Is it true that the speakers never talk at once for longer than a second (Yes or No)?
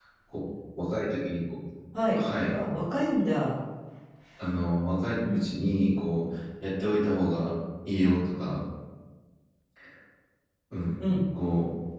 Yes